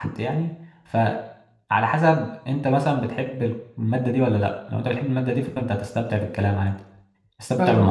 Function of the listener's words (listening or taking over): taking over